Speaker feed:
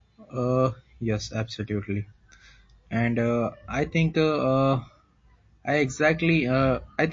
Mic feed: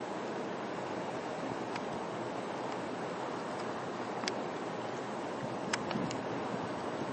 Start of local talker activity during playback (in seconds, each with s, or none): none